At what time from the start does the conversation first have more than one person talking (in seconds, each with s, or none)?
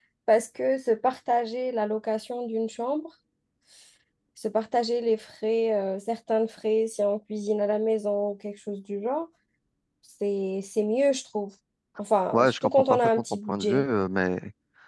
12.3 s